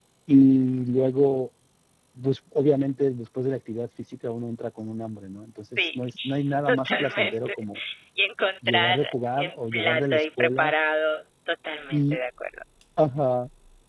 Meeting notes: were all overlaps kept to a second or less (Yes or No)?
No